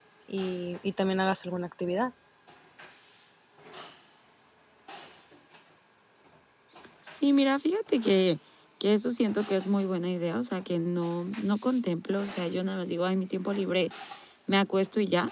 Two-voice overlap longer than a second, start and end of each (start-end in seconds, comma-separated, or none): none